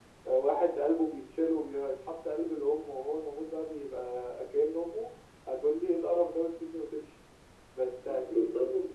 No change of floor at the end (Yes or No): Yes